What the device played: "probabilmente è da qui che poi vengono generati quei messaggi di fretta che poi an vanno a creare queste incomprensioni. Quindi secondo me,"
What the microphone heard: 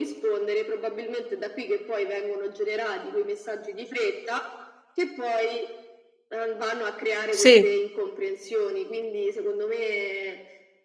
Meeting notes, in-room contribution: present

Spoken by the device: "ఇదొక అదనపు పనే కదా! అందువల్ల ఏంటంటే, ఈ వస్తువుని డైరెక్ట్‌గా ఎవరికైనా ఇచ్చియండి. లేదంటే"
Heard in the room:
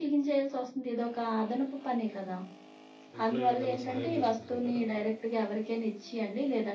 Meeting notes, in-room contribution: present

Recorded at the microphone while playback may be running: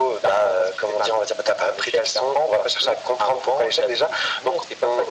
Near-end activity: none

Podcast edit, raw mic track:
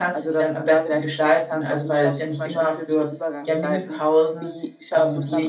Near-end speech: present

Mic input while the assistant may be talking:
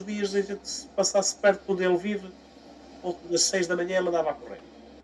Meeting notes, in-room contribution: none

